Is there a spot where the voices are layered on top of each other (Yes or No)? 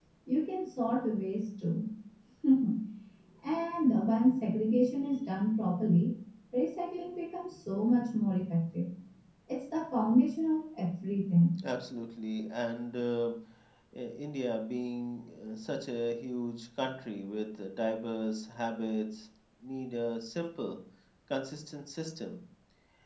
No